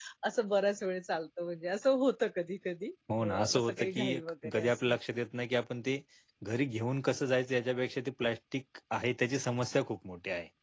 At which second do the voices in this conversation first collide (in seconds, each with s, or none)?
3.1 s